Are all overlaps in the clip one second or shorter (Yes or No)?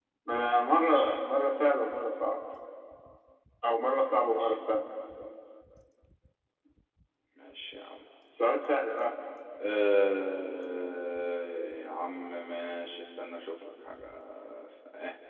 Yes